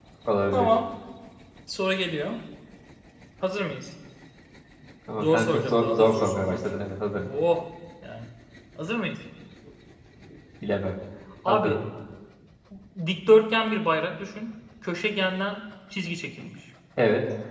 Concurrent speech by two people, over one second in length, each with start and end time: 5.2-7.3

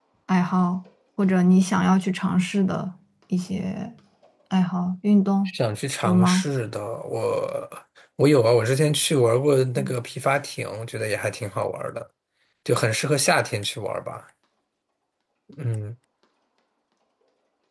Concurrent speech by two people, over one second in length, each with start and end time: none

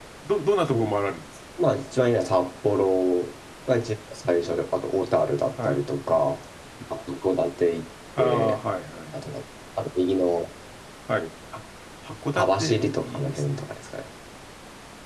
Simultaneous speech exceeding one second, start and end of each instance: 12.3-13.6

